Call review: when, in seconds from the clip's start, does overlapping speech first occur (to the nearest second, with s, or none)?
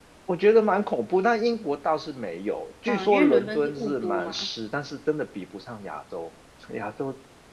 3 s